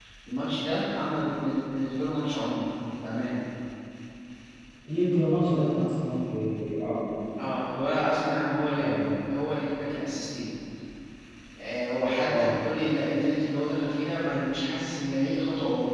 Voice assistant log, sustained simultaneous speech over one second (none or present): none